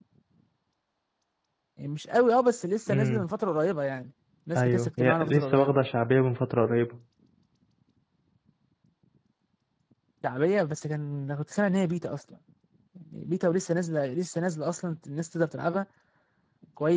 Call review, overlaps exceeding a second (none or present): present